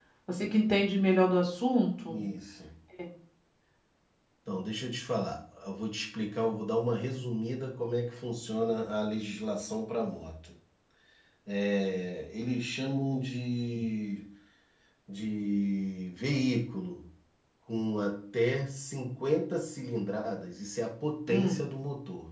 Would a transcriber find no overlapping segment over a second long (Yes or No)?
Yes